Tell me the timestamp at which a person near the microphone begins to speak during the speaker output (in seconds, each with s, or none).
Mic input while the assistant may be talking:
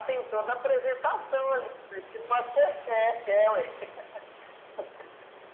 none